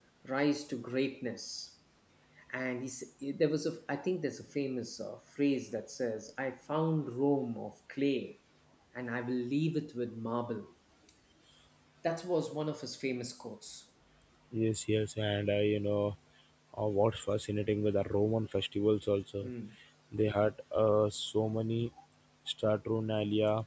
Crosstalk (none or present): none